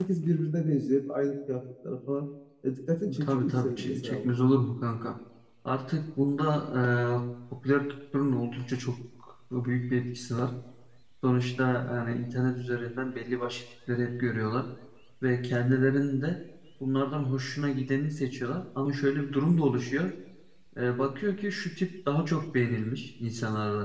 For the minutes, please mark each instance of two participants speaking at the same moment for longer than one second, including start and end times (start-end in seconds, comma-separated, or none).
3.2-4.4